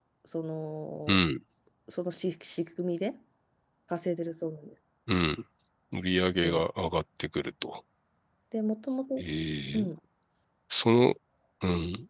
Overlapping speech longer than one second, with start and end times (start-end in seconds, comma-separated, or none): none